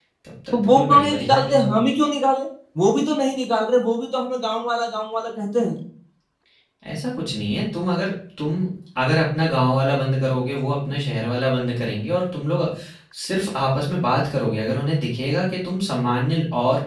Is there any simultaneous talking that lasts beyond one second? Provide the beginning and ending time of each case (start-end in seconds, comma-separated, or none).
0.5-1.8